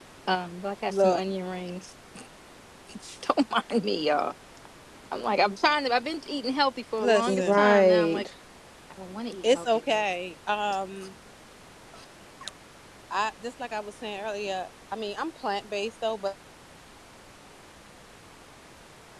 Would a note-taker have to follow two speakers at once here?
Yes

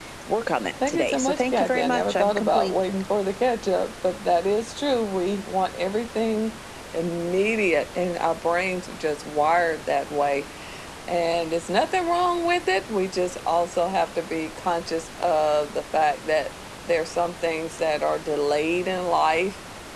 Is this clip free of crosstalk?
No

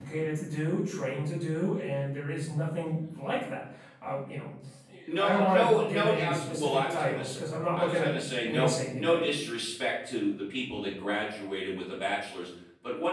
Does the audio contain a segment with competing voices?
Yes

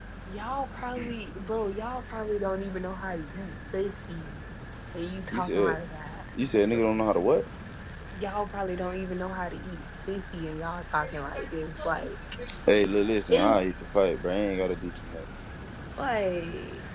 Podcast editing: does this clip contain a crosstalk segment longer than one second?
No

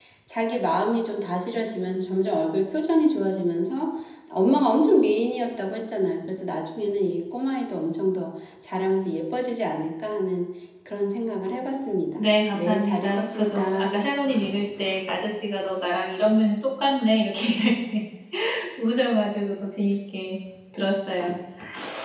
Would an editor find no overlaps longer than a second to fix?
No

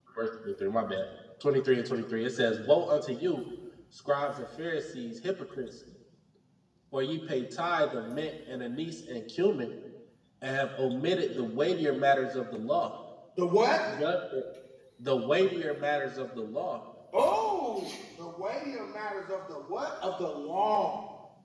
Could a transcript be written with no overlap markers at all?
Yes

